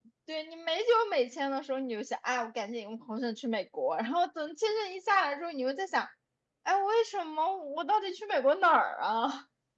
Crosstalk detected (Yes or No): No